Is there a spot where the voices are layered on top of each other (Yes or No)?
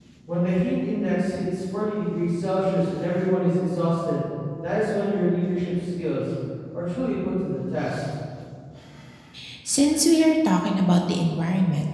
No